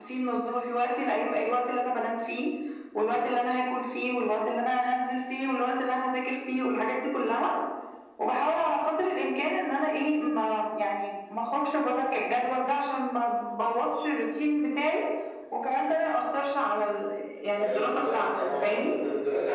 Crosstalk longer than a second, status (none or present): present